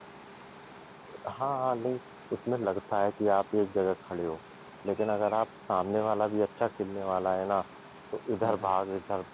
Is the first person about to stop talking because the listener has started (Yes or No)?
No